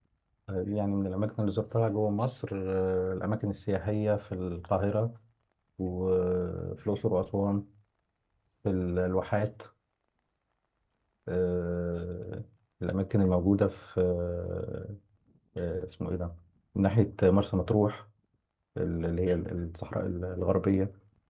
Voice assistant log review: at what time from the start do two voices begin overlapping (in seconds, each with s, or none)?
none